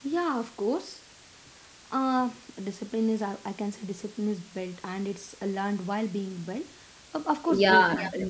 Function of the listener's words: taking over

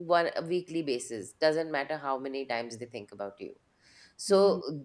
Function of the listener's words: listening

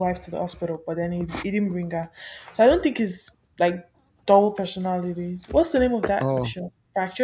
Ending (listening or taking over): listening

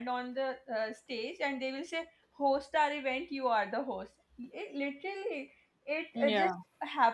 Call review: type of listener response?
listening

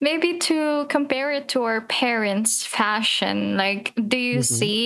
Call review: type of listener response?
listening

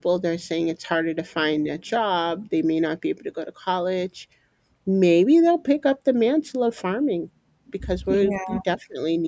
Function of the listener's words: listening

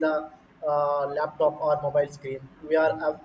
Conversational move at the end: listening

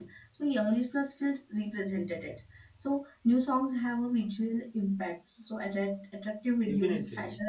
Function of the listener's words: listening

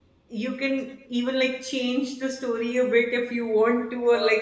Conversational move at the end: listening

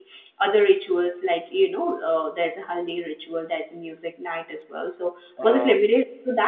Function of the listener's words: listening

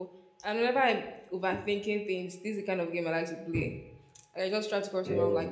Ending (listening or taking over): listening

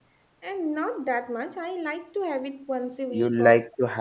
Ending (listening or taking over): taking over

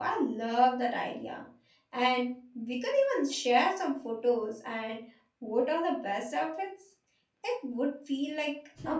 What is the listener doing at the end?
taking over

